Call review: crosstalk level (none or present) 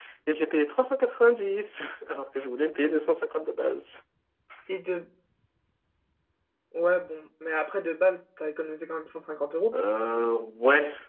none